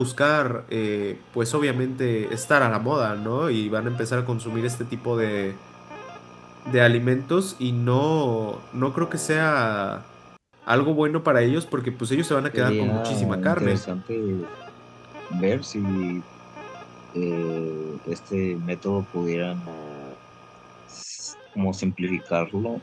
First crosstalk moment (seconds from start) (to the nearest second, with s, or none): 13 s